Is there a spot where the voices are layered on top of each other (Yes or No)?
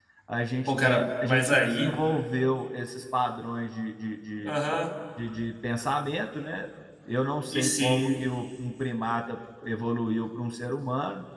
Yes